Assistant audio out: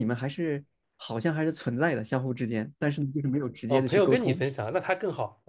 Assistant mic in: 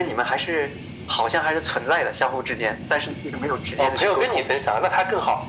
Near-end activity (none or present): none